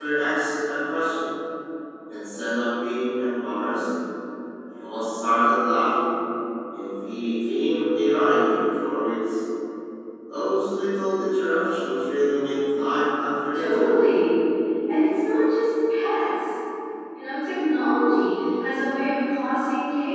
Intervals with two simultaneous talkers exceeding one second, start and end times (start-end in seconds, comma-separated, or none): none